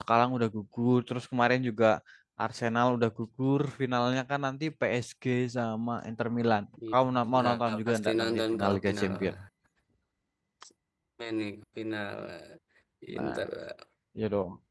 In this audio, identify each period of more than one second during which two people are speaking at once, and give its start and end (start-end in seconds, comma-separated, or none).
7.4-9.3